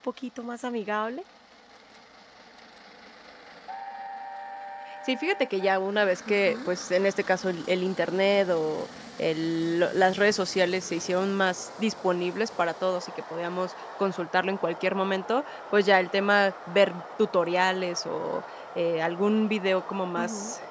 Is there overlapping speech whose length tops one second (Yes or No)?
No